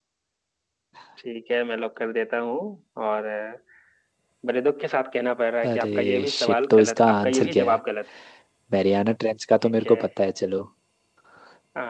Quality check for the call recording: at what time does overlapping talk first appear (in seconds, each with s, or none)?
5.7 s